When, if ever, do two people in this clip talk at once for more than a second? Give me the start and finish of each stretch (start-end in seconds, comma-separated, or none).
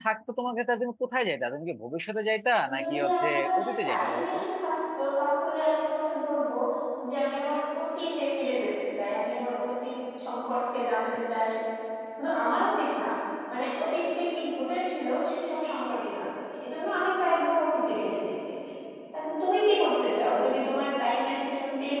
2.8-4.4